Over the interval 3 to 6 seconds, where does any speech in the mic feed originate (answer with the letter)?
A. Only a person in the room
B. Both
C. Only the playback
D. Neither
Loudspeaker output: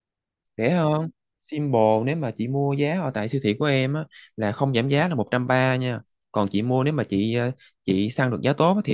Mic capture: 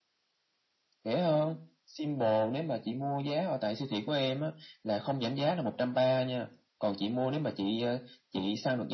C